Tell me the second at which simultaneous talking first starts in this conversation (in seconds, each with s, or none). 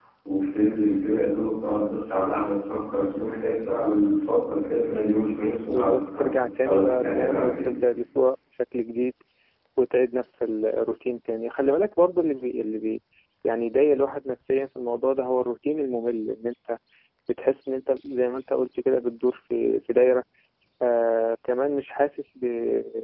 5.7 s